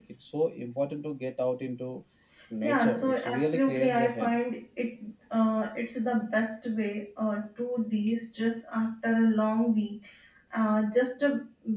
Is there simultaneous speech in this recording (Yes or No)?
Yes